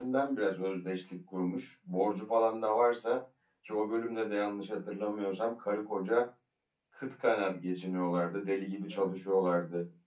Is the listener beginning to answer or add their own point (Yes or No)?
No